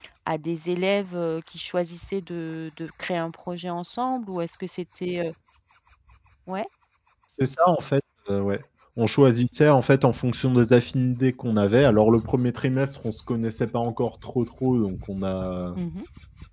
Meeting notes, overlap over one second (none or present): none